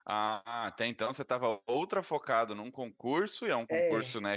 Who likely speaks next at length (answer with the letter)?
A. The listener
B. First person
B